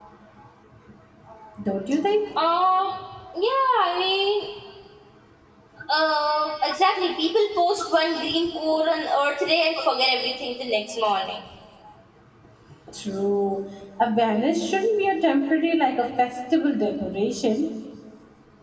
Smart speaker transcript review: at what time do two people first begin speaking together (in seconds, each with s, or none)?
none